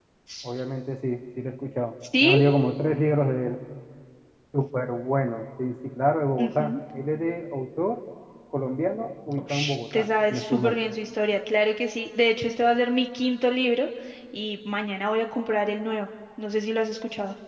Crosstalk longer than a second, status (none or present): present